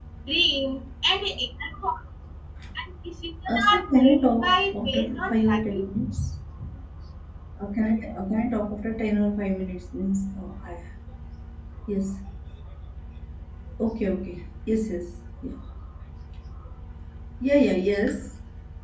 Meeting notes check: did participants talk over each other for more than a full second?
Yes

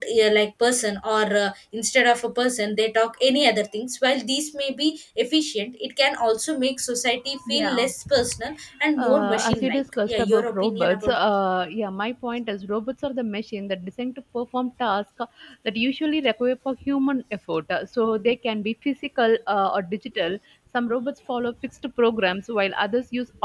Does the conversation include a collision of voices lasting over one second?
Yes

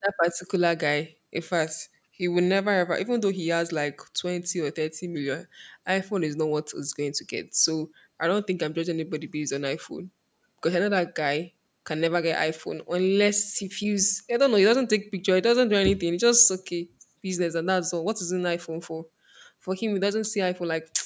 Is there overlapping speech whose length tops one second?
No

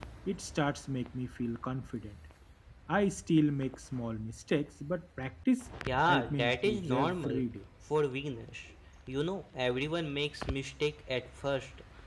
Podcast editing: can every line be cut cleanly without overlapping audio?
No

